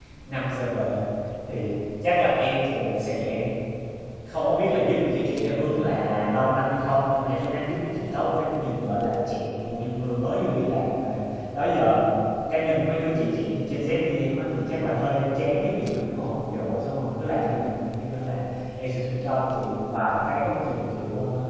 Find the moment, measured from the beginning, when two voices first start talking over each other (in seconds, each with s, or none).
none